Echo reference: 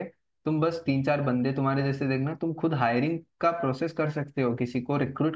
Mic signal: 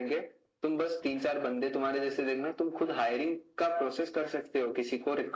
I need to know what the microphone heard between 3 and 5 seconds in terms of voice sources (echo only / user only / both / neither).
echo only